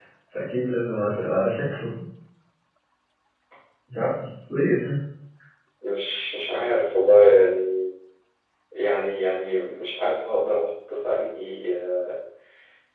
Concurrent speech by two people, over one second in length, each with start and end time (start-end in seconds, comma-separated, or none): none